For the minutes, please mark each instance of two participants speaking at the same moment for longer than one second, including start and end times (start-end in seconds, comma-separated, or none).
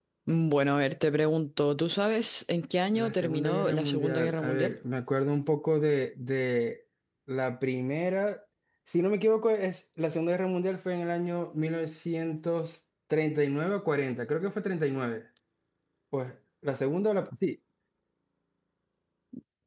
2.9-4.7